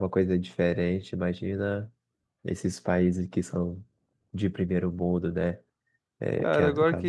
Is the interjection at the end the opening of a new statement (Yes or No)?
Yes